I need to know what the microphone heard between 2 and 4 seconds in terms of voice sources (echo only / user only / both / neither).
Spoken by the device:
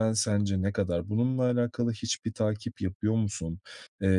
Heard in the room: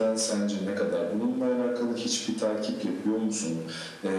echo only